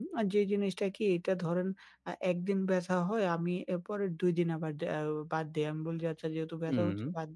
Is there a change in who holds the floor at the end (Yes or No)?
No